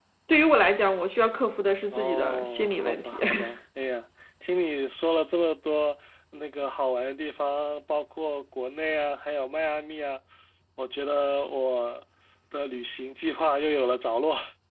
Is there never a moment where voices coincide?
No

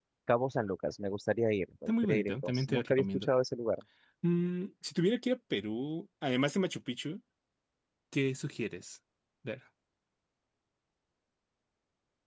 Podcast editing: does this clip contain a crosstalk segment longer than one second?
Yes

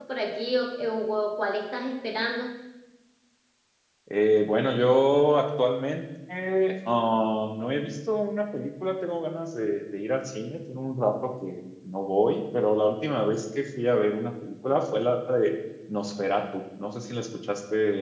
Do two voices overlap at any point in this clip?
No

